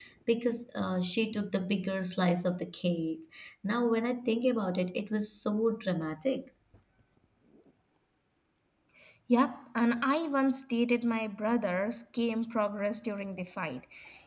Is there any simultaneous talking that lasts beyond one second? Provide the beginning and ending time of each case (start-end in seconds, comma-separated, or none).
none